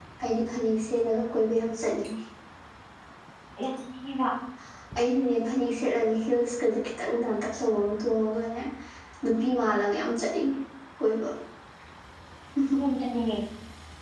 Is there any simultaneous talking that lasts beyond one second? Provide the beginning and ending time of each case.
none

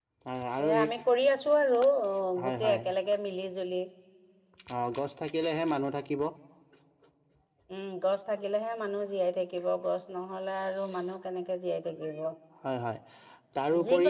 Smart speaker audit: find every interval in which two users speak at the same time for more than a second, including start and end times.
none

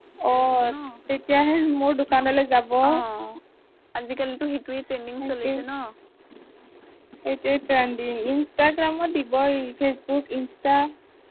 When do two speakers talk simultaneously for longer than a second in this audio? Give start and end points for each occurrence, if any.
none

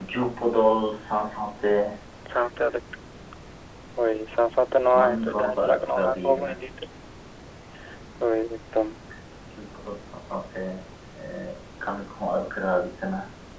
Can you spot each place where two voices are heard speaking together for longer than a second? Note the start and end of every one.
5.0-6.5

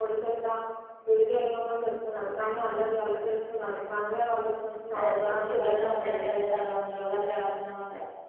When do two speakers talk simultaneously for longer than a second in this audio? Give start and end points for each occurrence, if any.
4.9-6.3

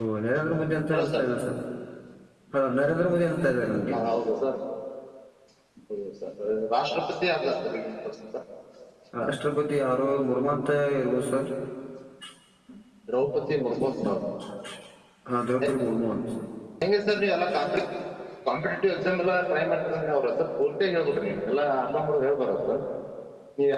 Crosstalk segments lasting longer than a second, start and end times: none

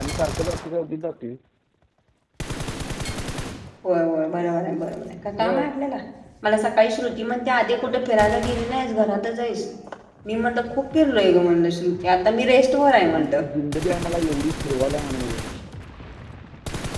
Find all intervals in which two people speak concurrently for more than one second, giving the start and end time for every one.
none

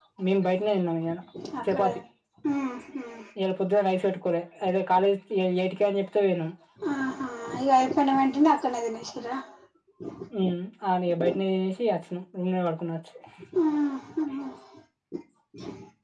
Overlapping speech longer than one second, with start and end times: none

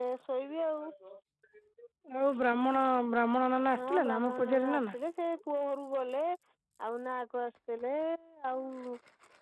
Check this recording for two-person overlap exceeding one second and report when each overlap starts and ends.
3.8-5.0

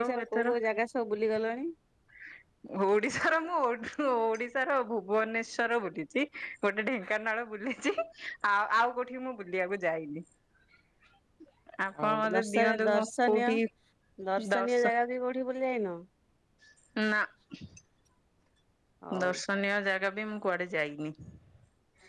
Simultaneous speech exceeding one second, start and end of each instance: 12.0-13.5

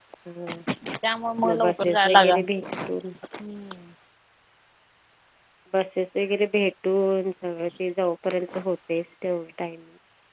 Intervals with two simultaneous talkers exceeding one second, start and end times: 1.4-3.0

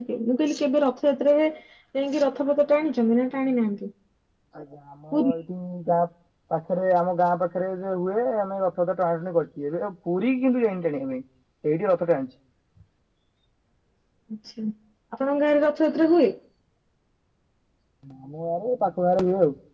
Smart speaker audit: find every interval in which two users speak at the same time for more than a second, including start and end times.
none

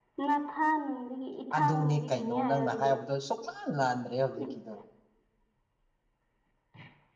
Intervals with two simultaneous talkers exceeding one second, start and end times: 1.6-2.9

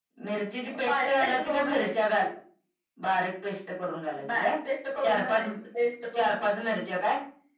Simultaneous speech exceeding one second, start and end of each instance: 0.8-2.1

